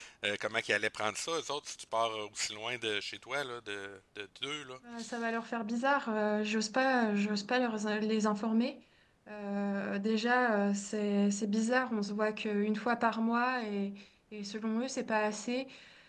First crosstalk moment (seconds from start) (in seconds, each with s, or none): none